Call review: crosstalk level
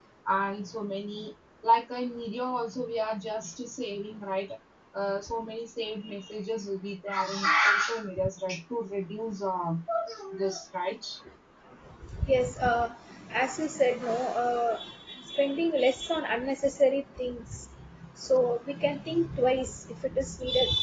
none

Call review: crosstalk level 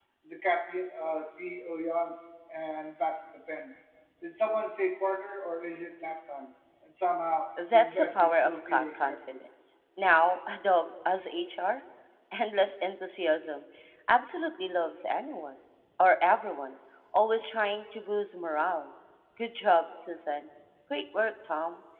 present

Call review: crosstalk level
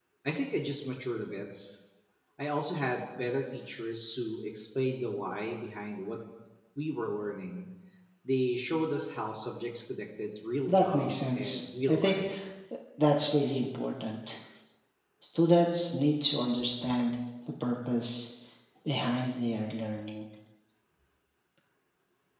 present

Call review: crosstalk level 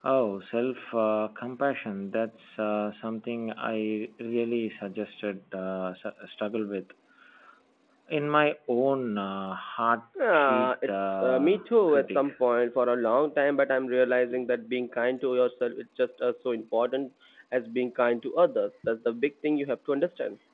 present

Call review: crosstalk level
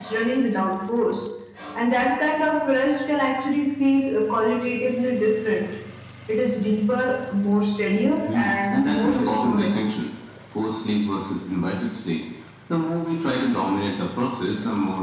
present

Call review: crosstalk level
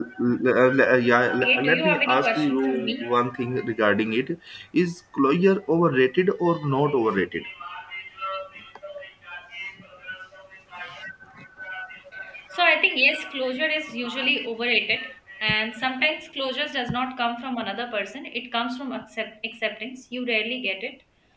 present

